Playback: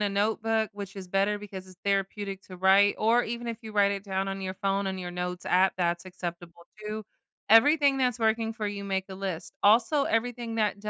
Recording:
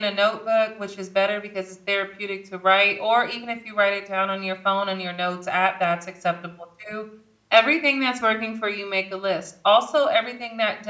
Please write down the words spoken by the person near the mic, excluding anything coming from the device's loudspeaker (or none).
none